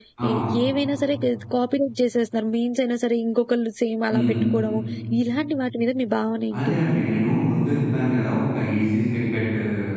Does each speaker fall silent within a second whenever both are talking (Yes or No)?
Yes